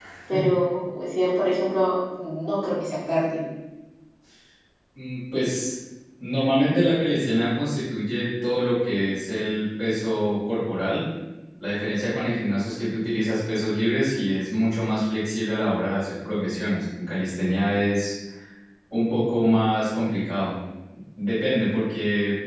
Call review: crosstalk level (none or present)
none